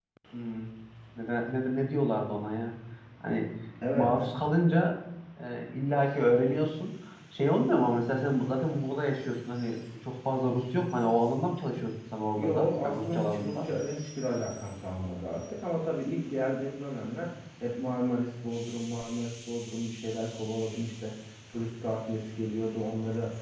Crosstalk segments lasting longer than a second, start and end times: 12.4-13.7

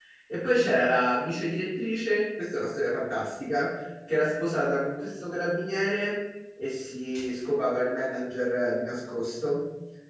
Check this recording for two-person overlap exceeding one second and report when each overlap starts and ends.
none

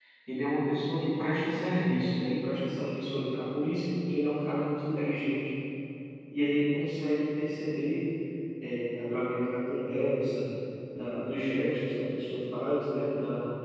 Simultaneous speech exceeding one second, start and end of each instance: none

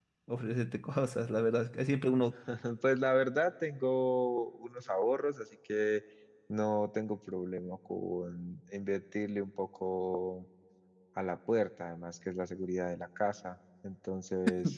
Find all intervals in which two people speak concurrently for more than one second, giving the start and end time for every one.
none

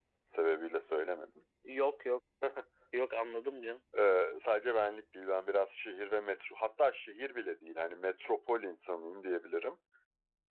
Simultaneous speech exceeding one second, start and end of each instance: none

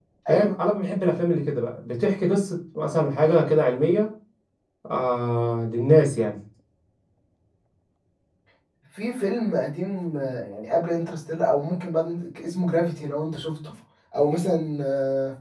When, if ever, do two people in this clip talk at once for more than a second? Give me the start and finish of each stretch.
none

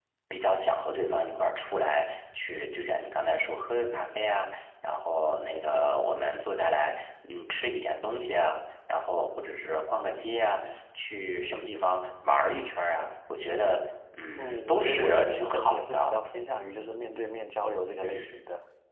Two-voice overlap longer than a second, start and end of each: 14.4-16.2

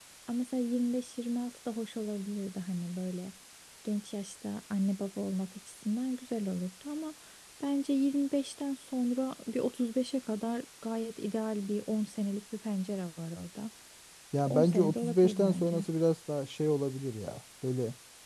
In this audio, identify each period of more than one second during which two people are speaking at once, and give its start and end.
14.5-15.8

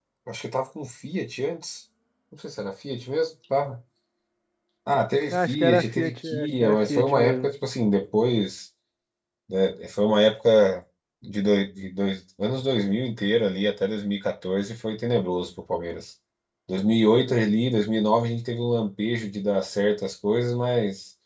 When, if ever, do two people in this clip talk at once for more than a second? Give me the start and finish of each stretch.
5.3-7.5

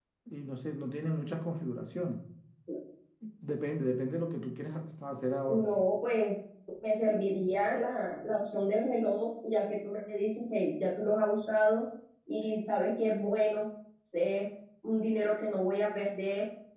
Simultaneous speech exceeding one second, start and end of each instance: none

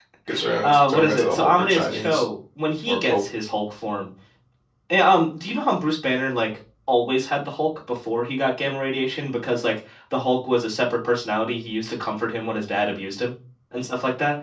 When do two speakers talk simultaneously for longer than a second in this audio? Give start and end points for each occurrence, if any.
0.6-2.2

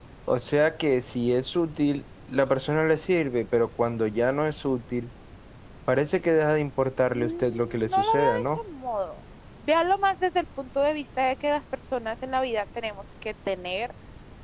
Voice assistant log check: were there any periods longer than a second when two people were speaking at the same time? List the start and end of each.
7.1-8.6

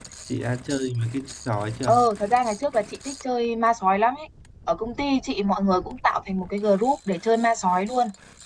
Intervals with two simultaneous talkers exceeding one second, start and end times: none

